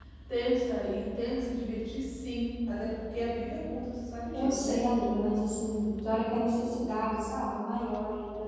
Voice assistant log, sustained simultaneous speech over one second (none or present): none